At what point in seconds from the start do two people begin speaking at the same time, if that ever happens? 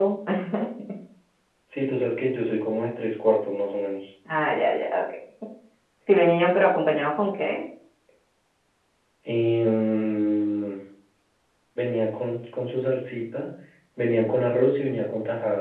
none

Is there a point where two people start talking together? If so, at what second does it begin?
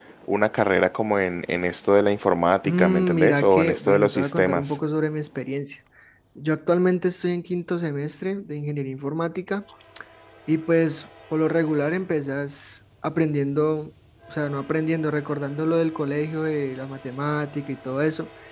2.6 s

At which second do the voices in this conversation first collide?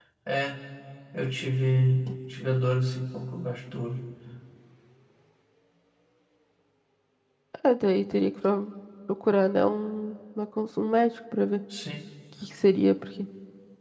none

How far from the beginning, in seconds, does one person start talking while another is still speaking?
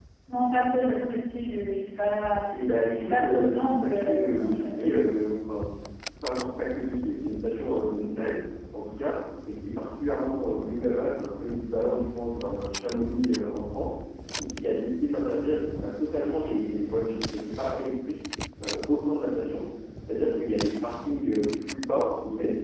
2.9 s

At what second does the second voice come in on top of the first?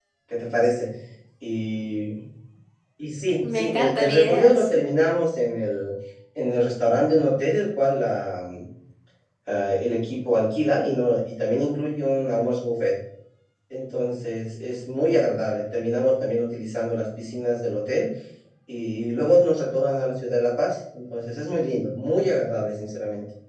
3.4 s

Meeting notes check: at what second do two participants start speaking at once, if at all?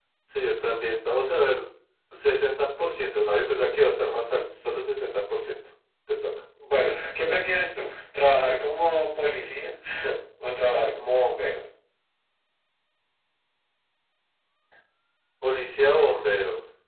none

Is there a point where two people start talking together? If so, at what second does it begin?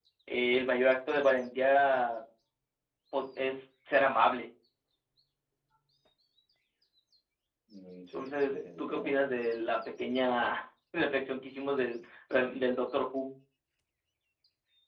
8.2 s

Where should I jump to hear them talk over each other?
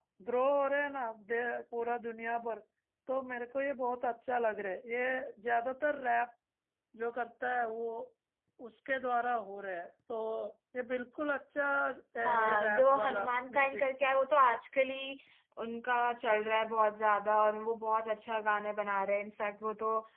12.2 s

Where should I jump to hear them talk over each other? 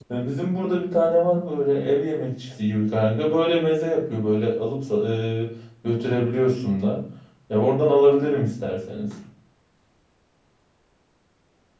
none

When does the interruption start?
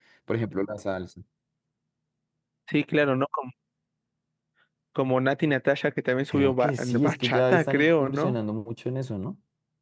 6.3 s

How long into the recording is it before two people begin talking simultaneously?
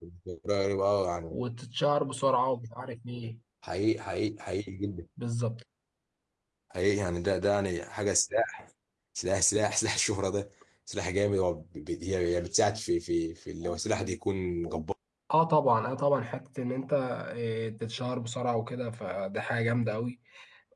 none

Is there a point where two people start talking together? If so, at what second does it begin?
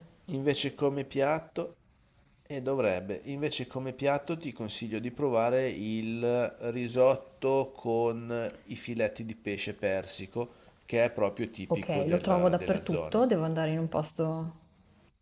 11.7 s

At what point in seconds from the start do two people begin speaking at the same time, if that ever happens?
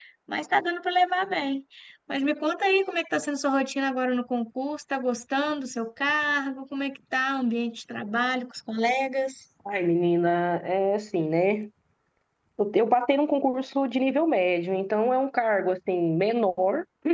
none

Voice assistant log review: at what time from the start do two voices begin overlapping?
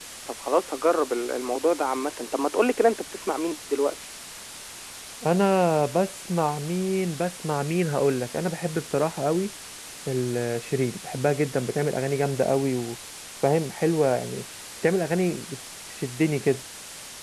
none

